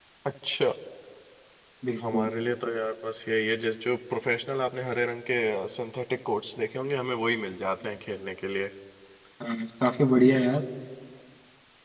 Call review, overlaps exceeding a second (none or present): none